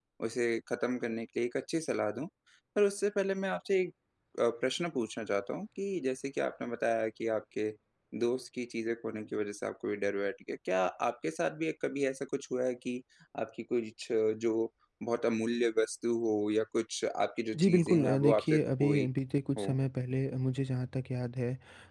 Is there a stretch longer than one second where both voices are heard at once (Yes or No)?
Yes